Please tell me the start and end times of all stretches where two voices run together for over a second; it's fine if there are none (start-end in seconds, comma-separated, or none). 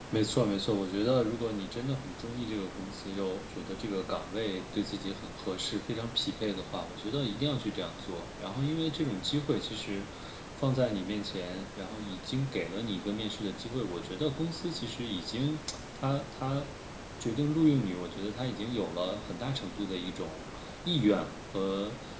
none